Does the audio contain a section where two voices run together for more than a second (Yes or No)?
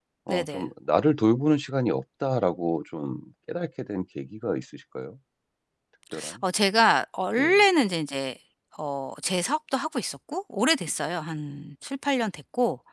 No